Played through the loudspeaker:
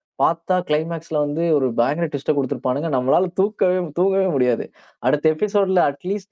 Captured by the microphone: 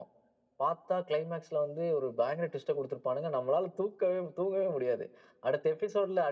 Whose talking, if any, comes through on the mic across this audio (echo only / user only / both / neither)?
echo only